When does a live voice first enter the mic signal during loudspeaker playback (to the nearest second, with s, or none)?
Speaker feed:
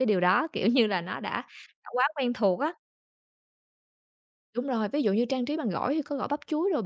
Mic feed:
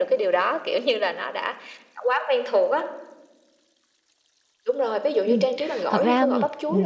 5 s